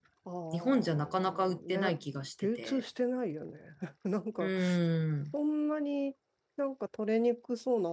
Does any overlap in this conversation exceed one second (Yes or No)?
Yes